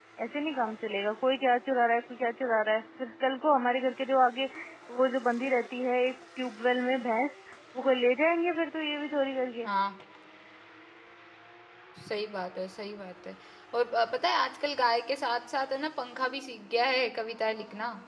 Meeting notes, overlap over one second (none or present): none